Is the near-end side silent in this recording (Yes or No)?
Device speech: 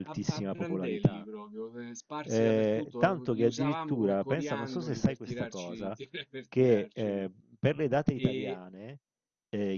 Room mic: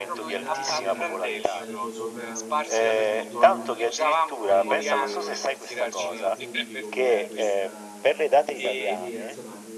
No